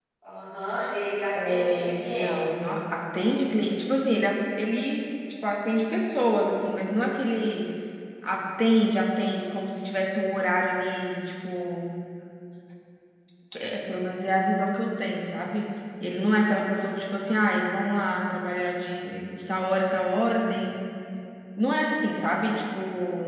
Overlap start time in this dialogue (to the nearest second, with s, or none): 1 s